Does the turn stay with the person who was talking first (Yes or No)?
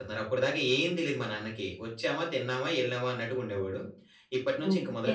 Yes